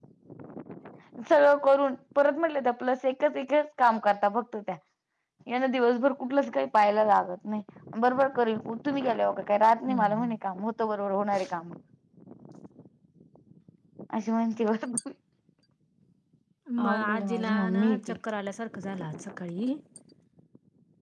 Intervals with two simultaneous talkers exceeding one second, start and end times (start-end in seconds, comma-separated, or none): 16.9-18.1